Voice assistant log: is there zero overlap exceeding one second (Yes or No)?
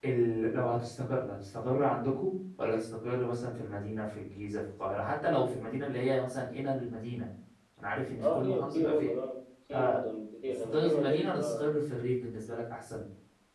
No